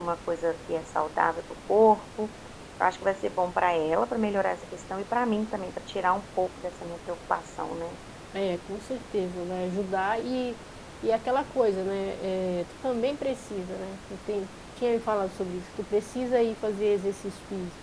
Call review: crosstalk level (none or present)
none